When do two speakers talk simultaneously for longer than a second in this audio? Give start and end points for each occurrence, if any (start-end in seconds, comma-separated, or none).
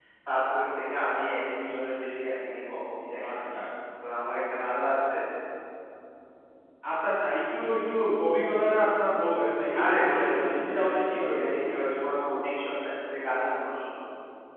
9.8-11.6